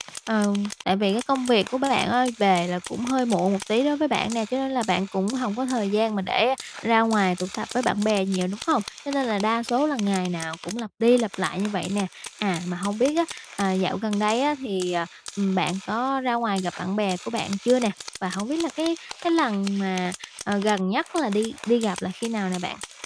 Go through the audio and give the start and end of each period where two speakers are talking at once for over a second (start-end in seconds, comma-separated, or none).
none